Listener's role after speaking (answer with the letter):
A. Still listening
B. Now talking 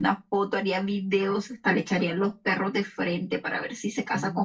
B